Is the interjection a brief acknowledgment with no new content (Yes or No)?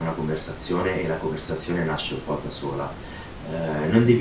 Yes